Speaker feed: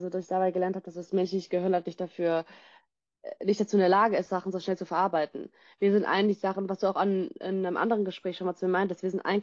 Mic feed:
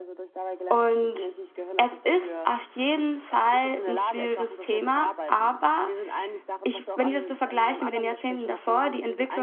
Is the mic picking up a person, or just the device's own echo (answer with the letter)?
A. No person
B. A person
B